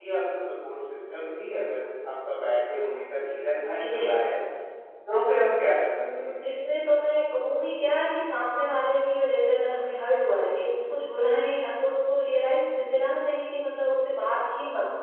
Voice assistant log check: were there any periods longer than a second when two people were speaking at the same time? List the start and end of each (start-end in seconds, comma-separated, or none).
none